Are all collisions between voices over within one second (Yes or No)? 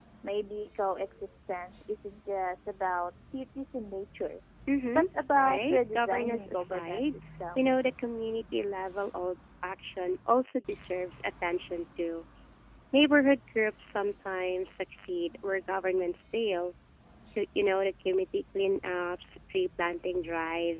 No